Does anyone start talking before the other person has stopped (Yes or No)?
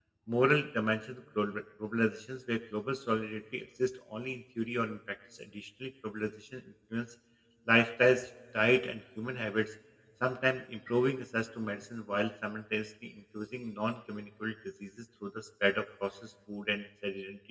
No